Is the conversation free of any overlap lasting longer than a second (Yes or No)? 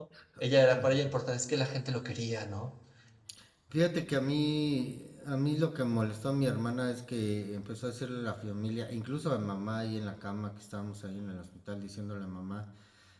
Yes